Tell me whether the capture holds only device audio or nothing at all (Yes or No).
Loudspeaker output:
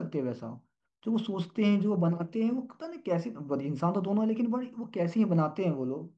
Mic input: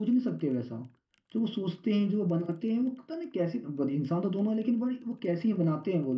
Yes